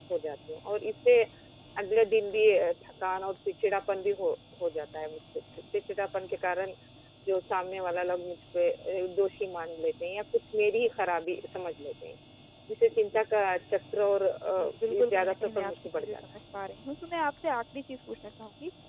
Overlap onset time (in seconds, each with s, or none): 14.6 s